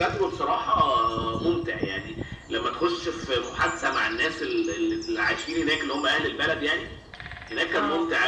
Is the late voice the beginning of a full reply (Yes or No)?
No